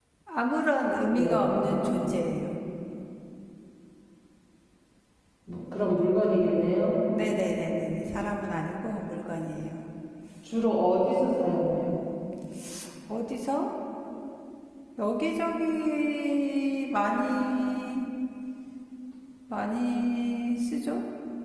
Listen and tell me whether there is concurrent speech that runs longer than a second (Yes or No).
No